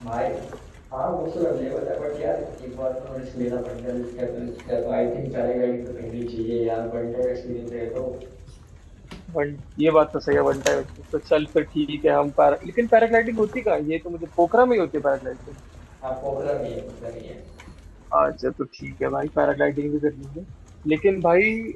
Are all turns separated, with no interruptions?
Yes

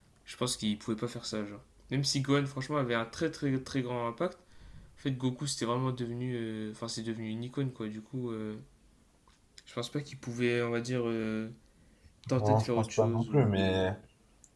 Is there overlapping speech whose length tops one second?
Yes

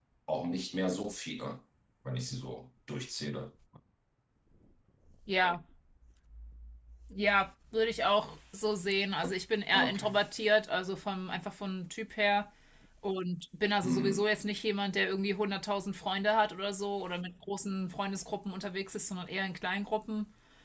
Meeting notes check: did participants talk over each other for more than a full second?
No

